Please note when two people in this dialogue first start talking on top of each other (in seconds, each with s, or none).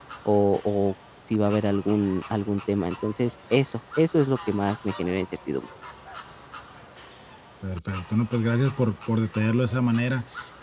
none